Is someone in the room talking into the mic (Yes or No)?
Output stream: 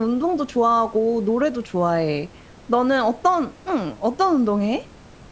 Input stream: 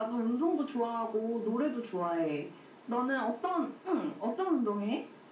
No